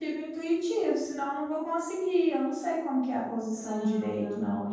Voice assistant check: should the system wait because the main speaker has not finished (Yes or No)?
No